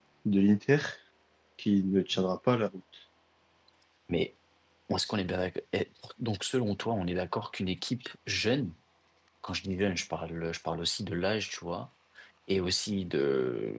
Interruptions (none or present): none